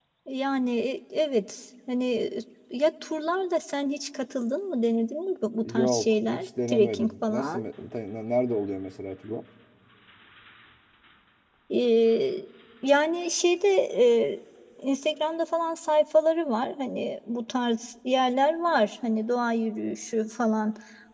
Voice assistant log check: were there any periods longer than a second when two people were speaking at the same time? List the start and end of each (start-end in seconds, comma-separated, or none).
5.6-7.6